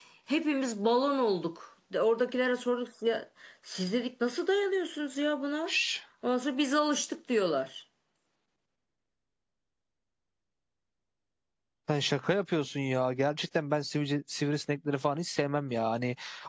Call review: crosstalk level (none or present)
none